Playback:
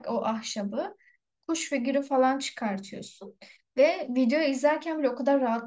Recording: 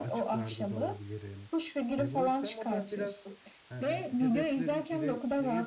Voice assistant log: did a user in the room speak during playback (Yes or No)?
Yes